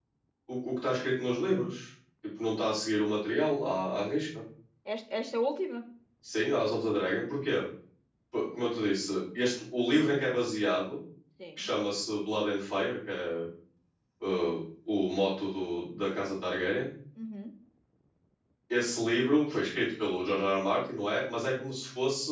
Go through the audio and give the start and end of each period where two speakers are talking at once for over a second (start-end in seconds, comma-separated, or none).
none